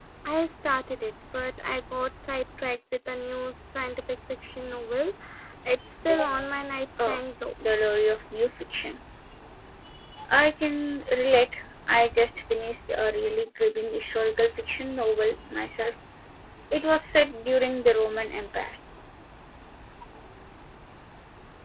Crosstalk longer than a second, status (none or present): none